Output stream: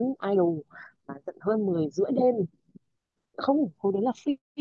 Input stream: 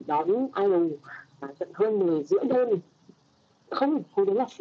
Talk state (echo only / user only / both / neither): echo only